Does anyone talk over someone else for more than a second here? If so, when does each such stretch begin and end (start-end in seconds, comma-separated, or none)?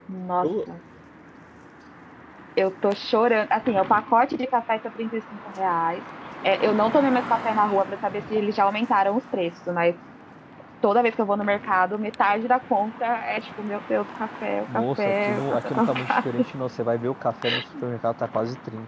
14.7-16.2